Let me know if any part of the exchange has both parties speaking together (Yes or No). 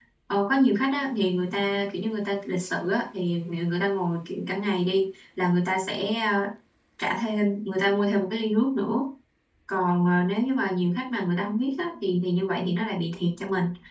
No